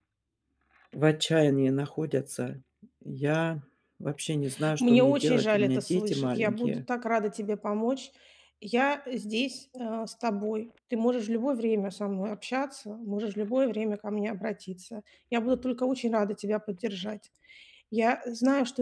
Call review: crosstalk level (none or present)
present